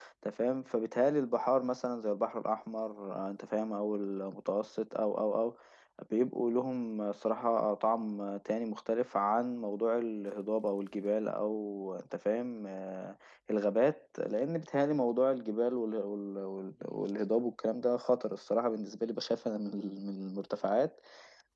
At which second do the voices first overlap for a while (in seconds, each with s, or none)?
none